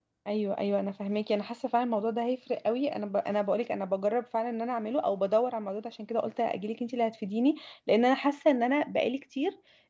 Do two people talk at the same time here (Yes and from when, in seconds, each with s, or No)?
No